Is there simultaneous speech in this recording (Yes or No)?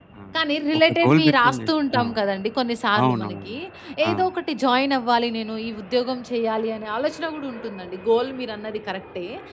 Yes